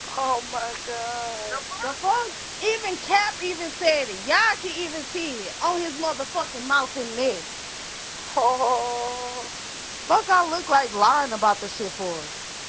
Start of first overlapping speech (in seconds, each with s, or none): none